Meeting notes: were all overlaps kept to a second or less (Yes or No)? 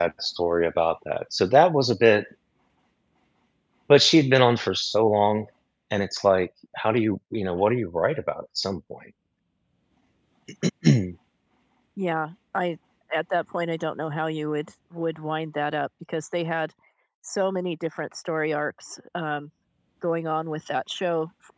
Yes